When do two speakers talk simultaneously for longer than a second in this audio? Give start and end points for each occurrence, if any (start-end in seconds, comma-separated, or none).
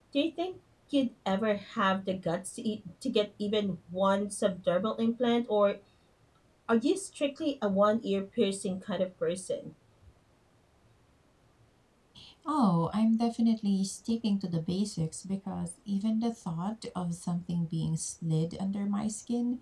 none